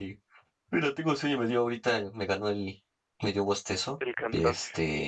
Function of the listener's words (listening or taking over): listening